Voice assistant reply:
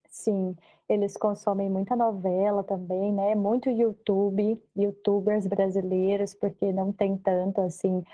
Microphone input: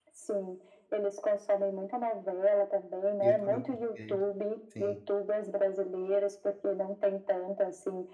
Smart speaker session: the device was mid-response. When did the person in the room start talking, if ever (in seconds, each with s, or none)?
3.2 s